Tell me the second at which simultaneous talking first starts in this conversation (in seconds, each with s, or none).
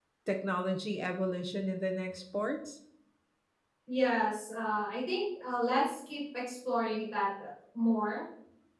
none